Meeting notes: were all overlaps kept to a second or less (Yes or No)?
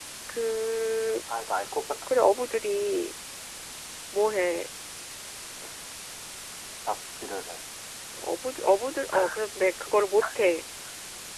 Yes